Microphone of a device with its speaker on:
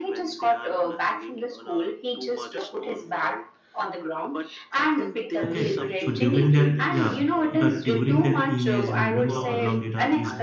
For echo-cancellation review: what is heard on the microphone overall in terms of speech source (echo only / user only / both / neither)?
both